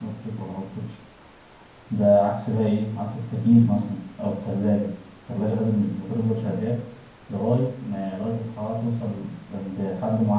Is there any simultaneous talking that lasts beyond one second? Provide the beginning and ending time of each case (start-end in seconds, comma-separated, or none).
none